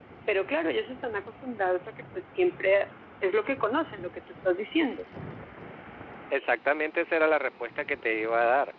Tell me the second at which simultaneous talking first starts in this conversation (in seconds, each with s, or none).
none